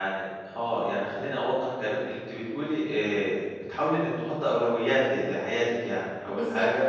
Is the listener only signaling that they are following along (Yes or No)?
Yes